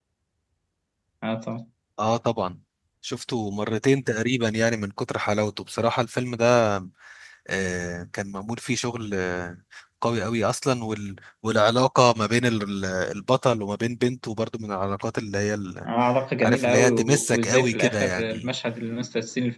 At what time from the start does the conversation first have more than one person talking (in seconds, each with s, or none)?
16.4 s